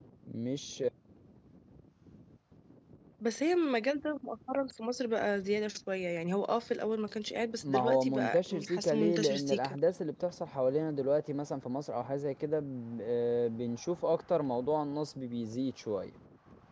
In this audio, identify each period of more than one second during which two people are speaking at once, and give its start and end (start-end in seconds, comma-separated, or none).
7.6-9.8